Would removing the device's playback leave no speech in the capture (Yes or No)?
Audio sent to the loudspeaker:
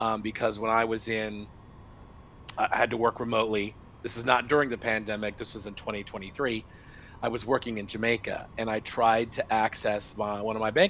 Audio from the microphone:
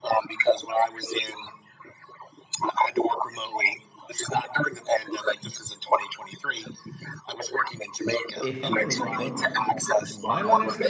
No